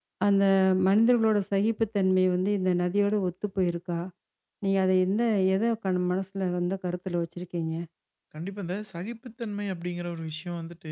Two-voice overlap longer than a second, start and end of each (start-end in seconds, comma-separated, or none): none